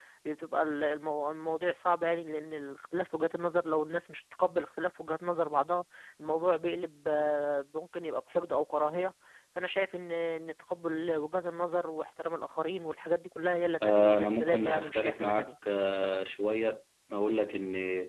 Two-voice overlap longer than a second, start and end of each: 13.8-15.5

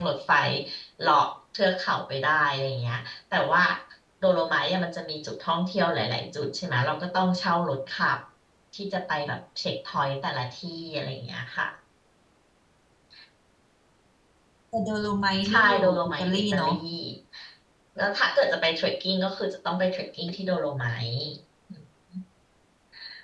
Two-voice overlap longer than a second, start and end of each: 15.5-16.7

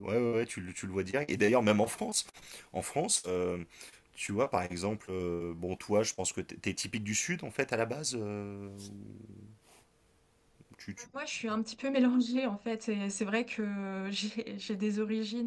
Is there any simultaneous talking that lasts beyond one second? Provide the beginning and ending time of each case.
none

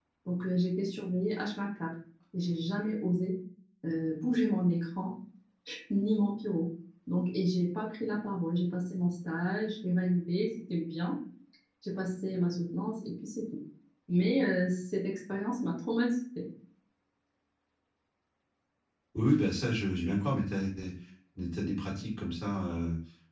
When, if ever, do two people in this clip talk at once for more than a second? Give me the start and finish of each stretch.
none

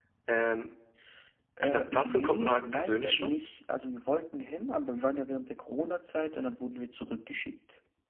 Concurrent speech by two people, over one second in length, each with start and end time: 1.6-3.3

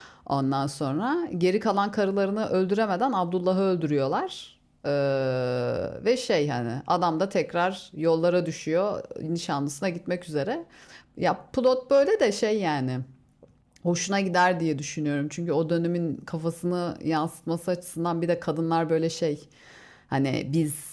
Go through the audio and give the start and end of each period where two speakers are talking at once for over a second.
none

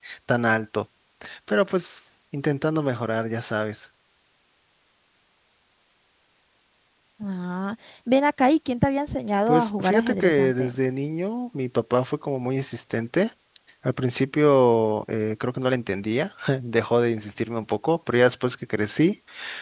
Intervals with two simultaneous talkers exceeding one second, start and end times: 9.5-10.7

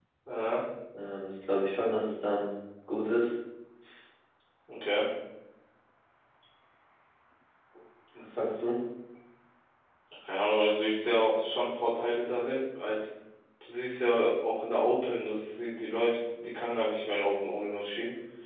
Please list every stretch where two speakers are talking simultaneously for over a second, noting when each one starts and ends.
none

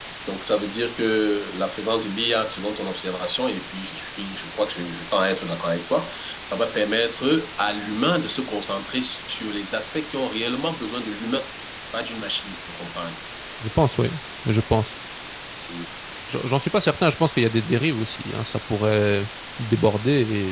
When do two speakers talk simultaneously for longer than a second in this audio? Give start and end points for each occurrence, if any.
none

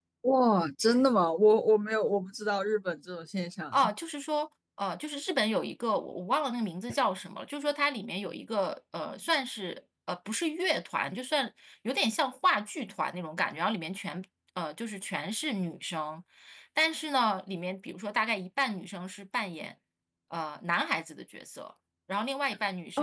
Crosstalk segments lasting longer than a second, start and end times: none

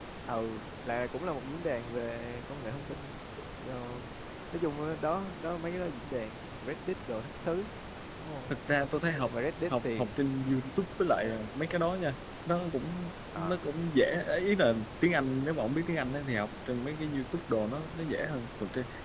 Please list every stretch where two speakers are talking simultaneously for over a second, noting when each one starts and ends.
none

